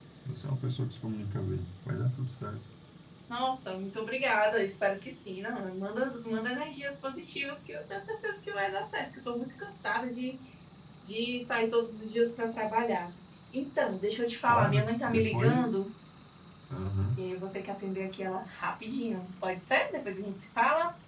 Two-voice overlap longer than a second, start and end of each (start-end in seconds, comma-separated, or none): 14.5-15.7